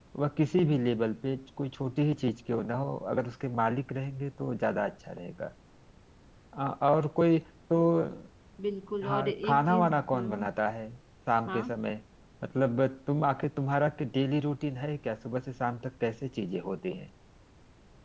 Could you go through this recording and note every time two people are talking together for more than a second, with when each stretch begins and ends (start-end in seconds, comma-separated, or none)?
9.0-10.4